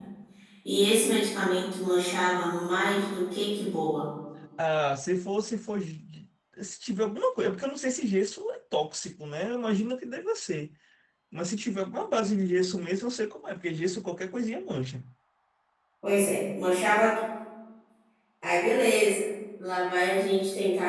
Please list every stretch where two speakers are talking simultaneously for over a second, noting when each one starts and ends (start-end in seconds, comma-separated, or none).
none